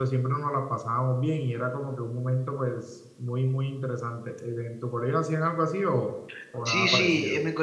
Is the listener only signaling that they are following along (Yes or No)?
No